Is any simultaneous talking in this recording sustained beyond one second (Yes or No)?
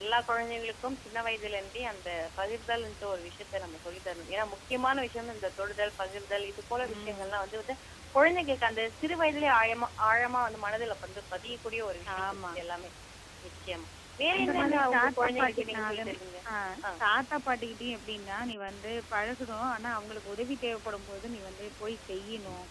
Yes